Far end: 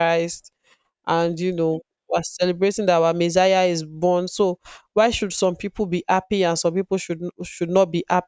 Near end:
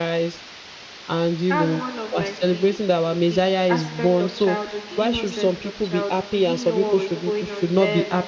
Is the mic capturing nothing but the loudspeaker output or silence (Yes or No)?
No